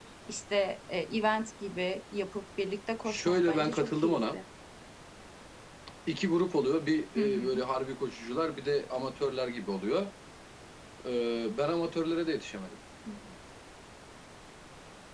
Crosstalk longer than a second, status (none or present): present